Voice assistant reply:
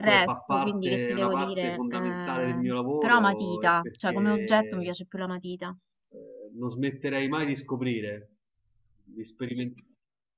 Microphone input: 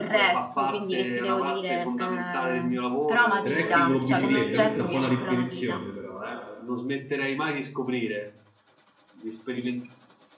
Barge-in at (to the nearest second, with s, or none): 3 s